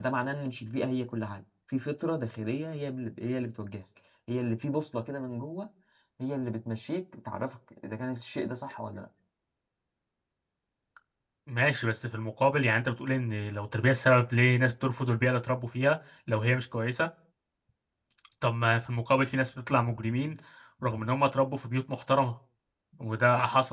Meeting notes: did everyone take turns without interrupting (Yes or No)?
Yes